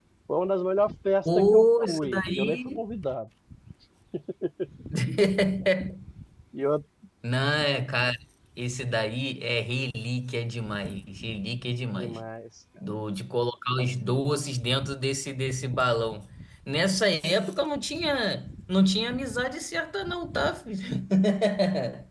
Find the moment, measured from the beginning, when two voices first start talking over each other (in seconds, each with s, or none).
1.2 s